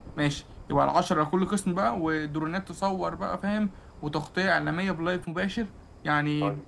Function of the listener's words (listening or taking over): taking over